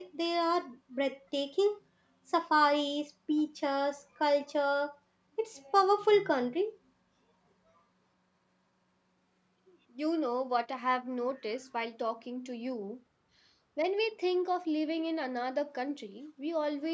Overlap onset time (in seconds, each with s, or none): none